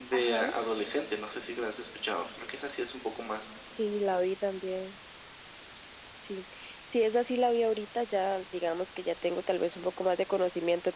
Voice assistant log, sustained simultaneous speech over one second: none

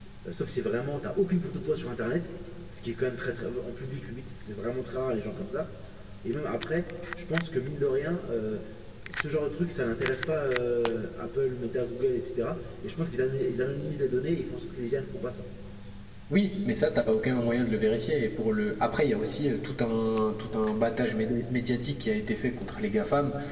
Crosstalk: none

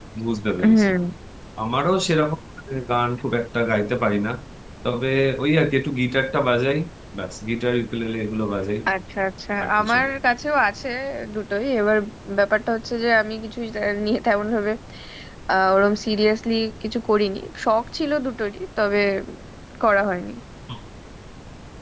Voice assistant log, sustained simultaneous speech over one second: none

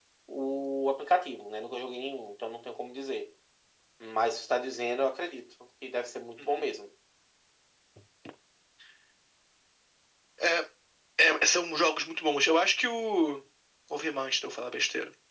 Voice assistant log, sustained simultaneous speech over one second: none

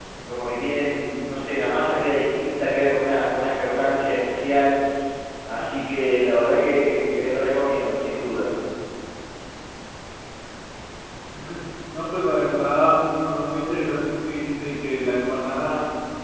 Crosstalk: none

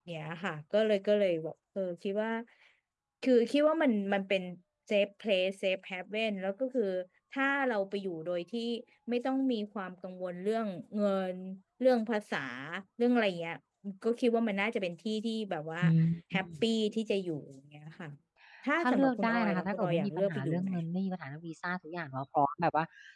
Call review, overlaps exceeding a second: present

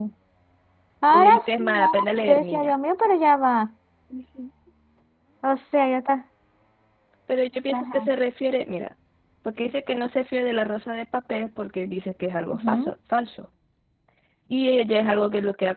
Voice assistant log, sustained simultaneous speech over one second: present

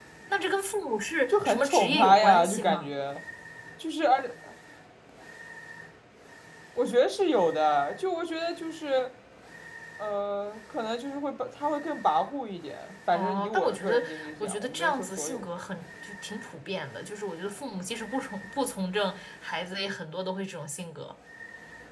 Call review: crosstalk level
present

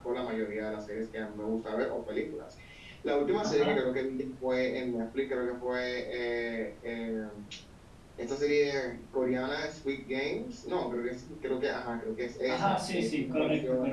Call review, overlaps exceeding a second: present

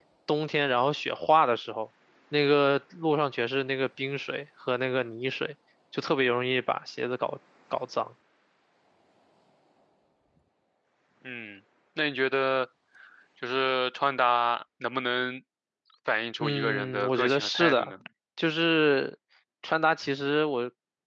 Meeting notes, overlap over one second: present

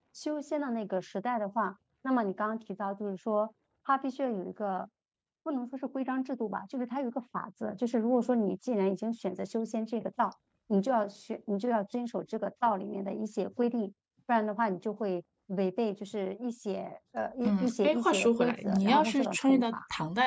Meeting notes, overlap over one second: present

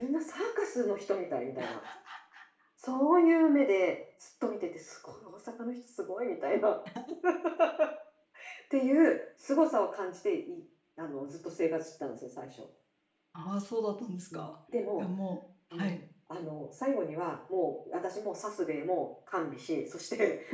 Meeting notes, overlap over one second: none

